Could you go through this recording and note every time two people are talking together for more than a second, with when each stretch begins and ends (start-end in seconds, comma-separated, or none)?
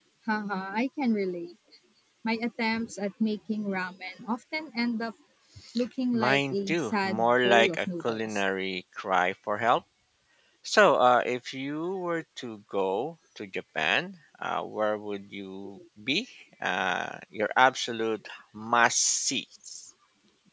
6.1-8.4